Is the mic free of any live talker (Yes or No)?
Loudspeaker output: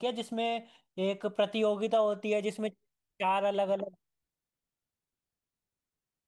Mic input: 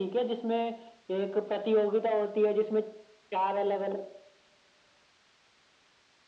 Yes